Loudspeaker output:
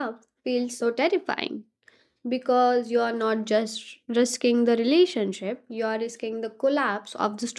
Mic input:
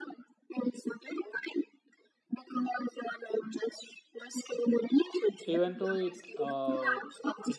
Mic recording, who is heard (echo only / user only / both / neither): both